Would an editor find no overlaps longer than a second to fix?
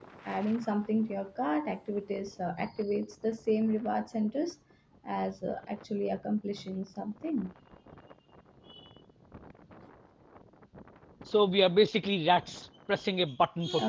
Yes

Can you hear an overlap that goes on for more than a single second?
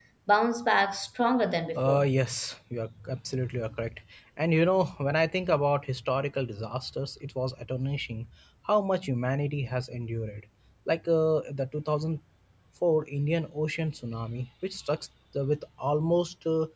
No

